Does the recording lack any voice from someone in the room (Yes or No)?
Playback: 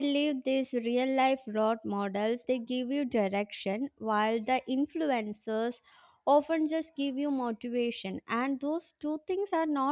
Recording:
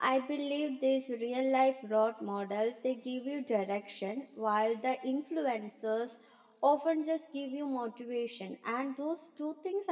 Yes